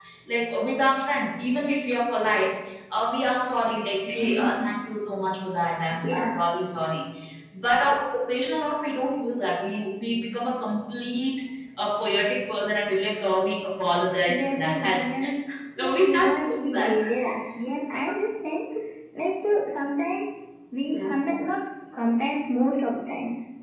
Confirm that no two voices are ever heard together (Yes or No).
No